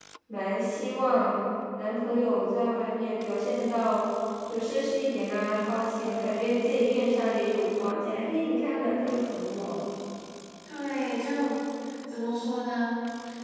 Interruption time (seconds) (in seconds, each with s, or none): none